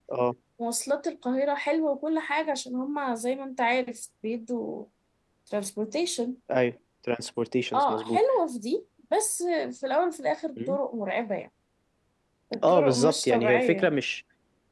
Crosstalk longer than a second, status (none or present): present